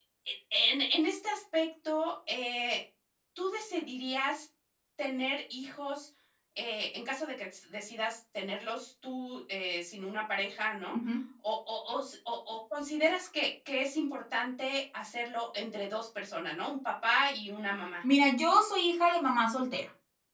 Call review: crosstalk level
none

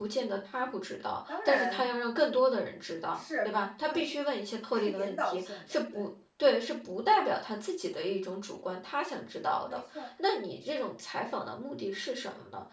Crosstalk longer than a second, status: present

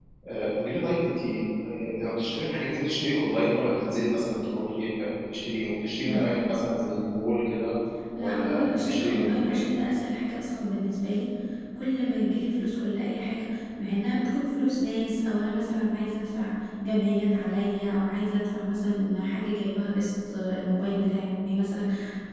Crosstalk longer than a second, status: present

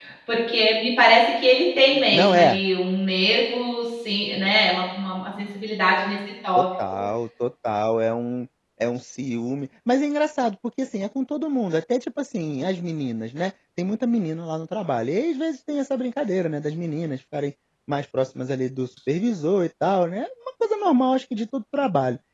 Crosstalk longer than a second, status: none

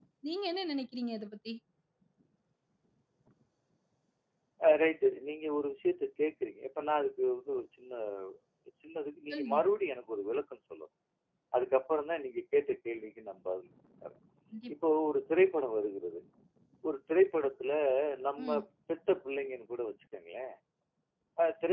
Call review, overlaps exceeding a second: none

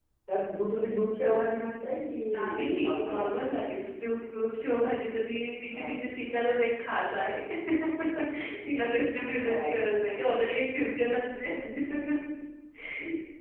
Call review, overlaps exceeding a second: present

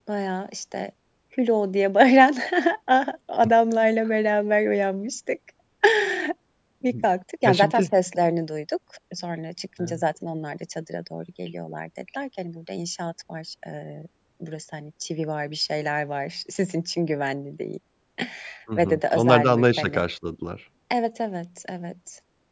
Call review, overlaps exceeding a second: present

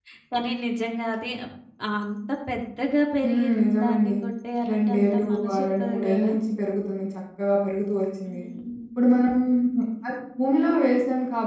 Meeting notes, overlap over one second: present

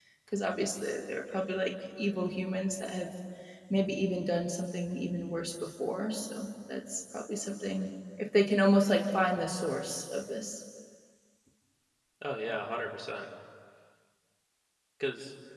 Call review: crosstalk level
none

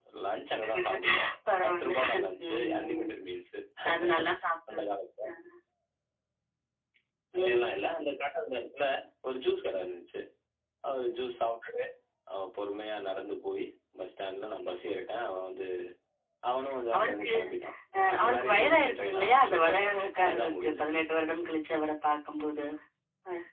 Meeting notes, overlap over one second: present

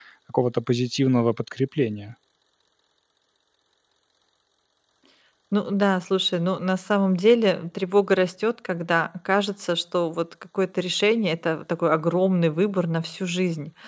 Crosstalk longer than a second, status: none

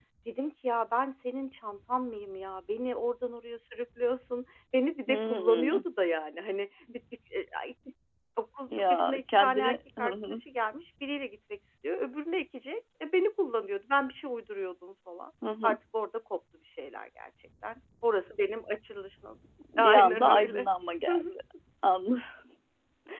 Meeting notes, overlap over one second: present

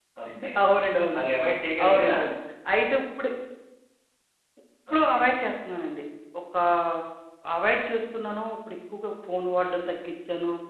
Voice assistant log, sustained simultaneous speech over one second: none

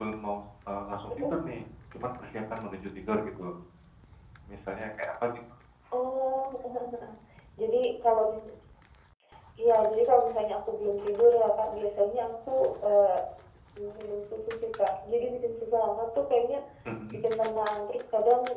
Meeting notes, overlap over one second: none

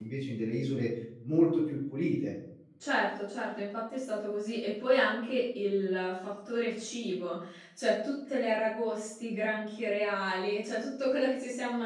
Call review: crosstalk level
none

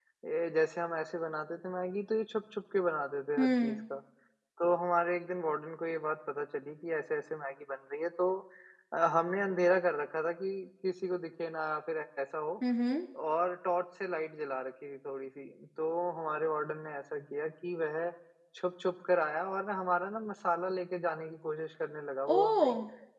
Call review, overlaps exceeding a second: none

